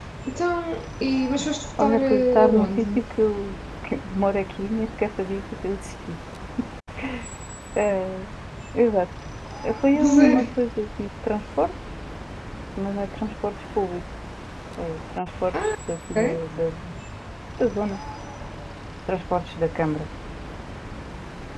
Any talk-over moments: Yes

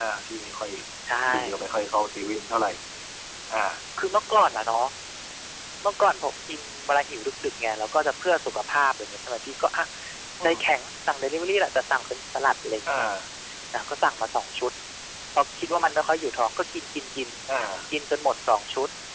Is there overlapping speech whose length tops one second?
No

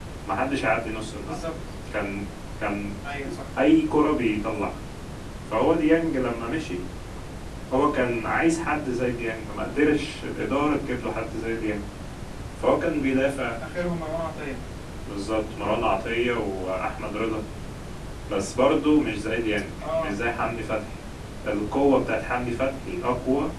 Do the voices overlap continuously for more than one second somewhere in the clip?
No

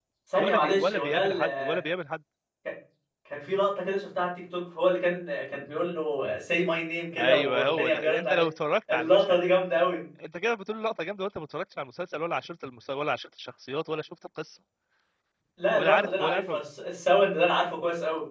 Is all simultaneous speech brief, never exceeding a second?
No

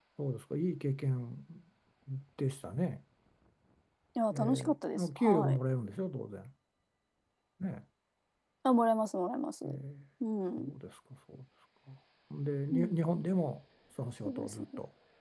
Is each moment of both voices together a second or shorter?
No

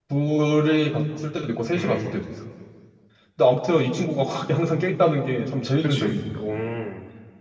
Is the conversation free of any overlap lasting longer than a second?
Yes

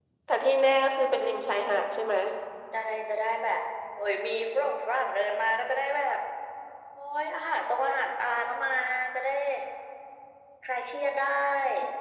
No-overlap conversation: Yes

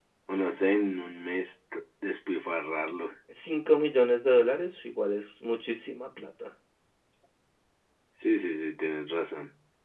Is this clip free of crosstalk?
Yes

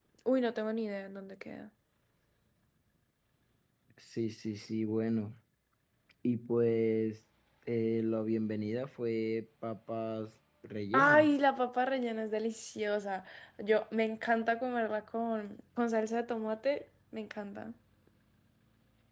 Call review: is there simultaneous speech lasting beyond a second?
No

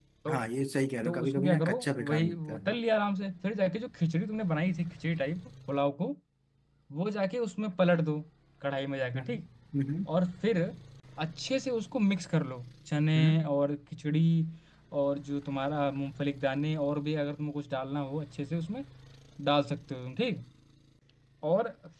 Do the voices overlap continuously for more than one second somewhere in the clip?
Yes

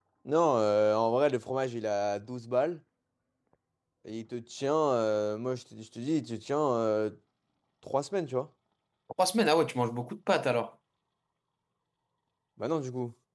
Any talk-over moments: No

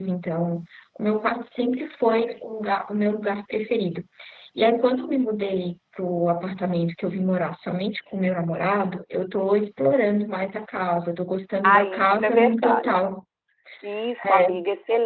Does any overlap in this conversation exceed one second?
Yes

